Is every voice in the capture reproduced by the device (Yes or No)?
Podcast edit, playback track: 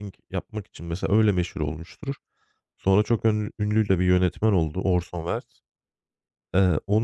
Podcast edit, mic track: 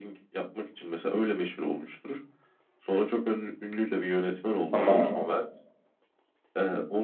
No